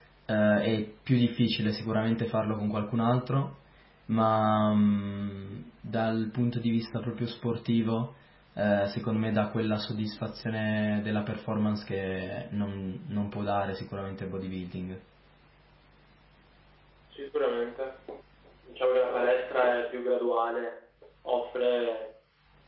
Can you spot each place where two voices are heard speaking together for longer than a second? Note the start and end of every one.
none

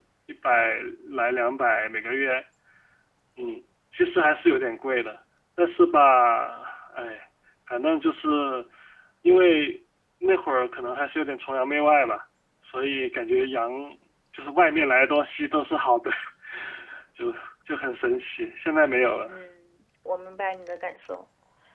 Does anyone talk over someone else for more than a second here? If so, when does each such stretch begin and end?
none

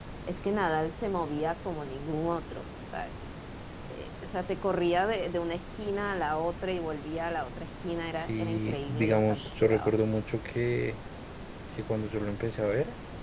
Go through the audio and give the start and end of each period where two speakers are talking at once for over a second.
8.2-9.9

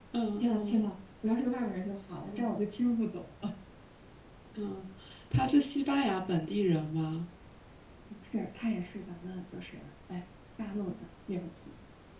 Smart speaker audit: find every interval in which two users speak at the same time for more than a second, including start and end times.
none

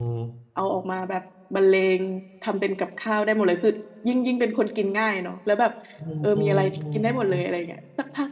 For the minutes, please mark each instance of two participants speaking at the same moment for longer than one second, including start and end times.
6.2-7.4

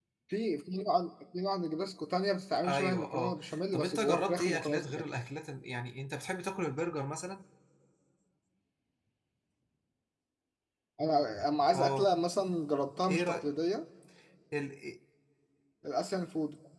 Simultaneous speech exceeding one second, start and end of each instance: 2.6-5.0

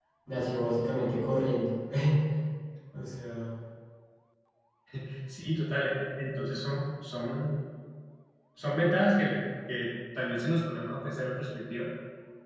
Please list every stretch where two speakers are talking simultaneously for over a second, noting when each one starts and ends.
none

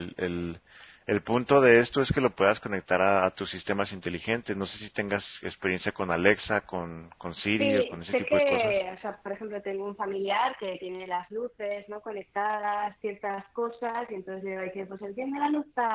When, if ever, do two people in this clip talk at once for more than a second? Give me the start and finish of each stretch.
7.6-8.8

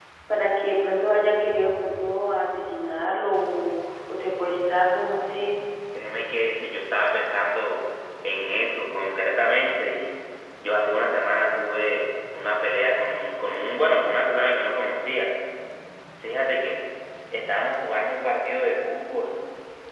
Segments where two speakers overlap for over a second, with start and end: none

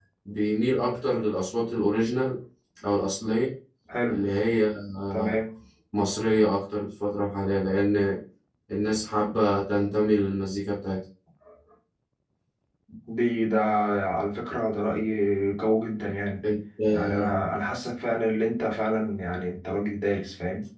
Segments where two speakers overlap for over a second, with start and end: none

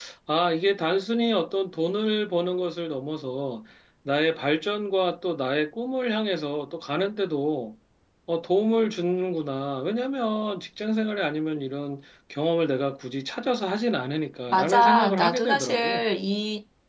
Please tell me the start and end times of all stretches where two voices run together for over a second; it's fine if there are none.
14.5-16.0

